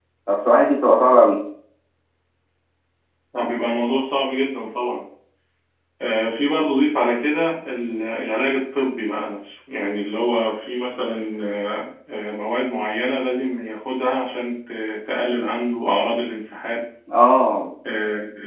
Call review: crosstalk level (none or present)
none